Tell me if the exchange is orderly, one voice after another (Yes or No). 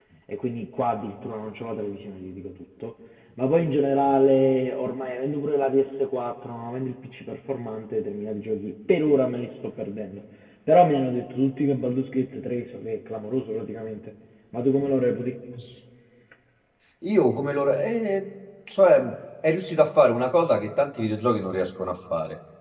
Yes